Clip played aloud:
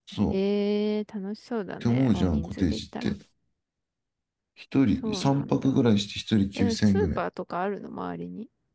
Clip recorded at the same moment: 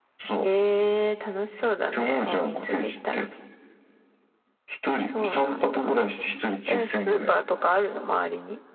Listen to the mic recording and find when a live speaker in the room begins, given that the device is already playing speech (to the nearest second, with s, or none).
none